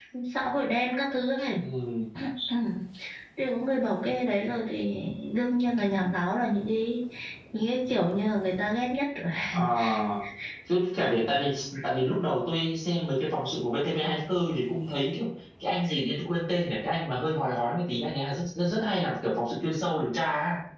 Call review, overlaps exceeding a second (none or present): none